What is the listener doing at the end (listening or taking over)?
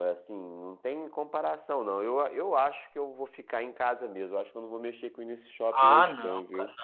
taking over